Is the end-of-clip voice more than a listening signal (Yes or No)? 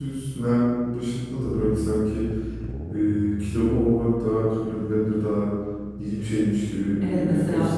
Yes